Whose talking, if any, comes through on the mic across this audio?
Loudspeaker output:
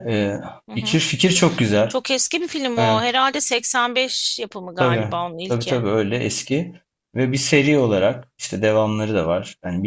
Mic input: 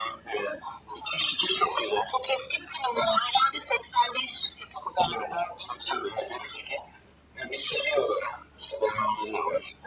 echo only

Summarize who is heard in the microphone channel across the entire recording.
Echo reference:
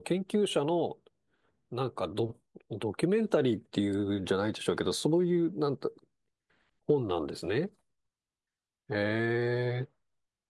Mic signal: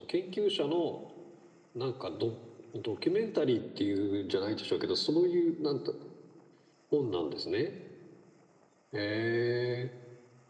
echo only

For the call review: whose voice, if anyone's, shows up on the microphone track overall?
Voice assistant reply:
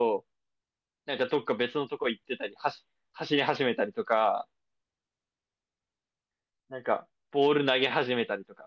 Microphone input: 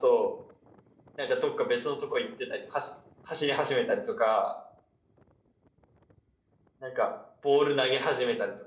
echo only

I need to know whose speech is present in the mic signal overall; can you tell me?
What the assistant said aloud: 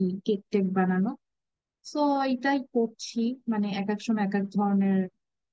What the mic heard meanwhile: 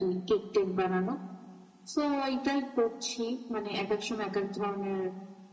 echo only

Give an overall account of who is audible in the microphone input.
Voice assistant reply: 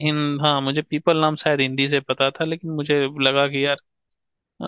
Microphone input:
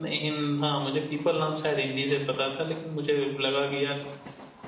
echo only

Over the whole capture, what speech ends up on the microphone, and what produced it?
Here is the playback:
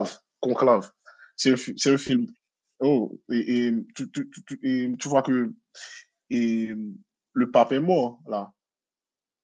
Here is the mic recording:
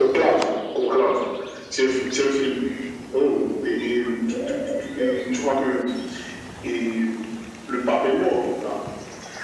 echo only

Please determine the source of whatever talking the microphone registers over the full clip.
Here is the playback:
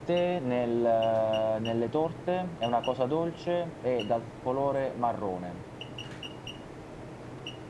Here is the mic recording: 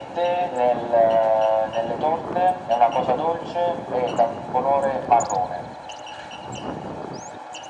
echo only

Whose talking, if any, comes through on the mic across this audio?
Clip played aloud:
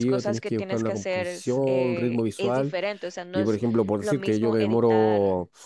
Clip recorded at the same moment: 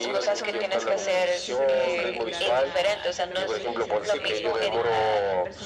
both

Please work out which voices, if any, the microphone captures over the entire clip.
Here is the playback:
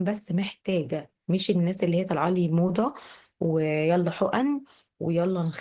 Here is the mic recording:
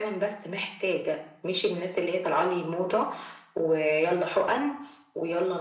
echo only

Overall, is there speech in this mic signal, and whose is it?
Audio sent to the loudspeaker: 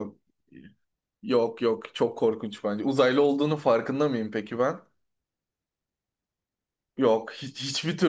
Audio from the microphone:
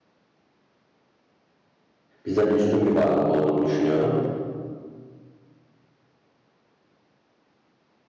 user only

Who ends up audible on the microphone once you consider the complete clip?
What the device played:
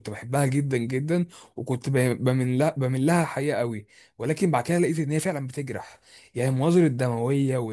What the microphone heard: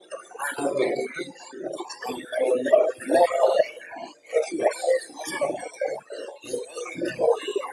echo only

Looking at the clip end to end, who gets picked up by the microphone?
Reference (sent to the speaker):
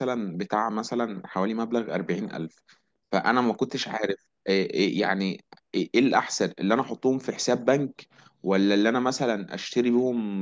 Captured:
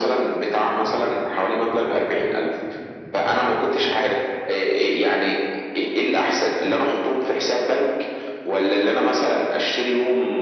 echo only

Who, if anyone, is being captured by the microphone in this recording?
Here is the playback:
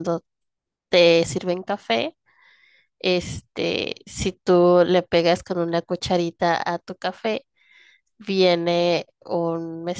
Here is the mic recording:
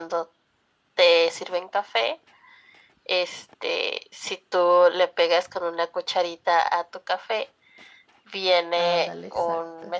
both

